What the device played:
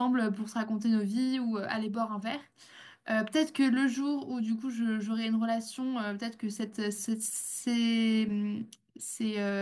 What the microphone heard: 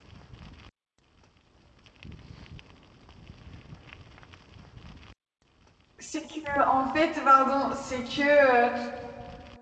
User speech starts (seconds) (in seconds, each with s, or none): 6.0 s